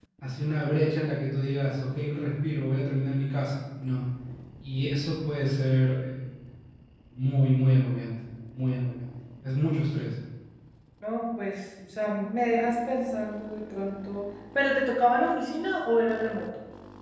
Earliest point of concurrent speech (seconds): none

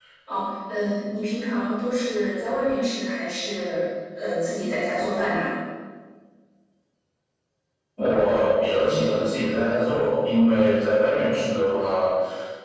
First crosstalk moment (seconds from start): none

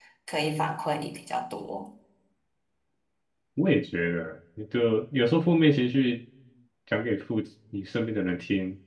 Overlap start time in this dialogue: none

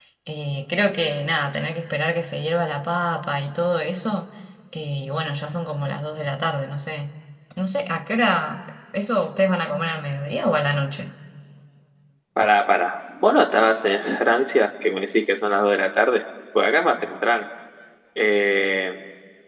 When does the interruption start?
none

